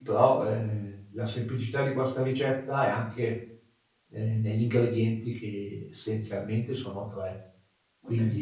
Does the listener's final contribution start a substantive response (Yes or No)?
No